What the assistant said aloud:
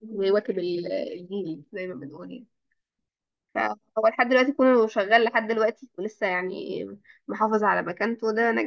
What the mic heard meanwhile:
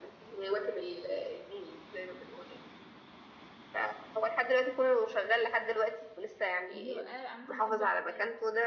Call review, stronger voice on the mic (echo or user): echo